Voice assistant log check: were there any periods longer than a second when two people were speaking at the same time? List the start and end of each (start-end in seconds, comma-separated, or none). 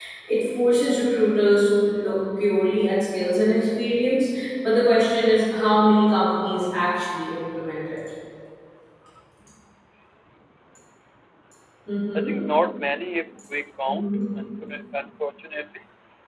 none